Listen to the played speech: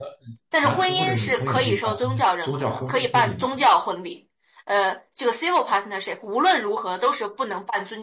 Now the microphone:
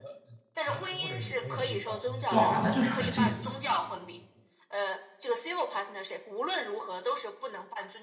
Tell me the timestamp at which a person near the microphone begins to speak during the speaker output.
2.3 s

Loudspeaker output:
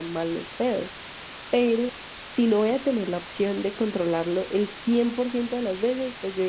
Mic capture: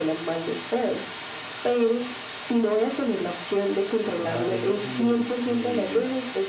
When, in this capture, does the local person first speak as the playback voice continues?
4.2 s

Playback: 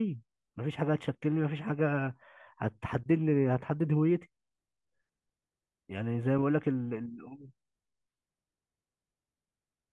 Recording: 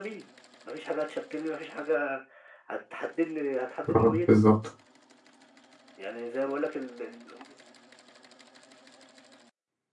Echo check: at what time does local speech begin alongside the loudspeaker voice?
3.9 s

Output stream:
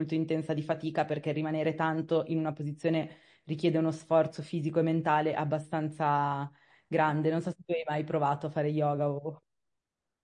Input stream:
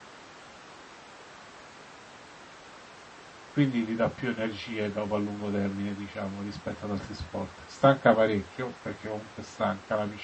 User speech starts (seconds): 3.5 s

